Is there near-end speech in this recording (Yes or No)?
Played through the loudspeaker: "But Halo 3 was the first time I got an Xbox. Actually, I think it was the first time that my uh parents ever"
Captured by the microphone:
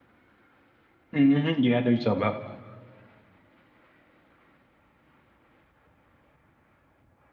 Yes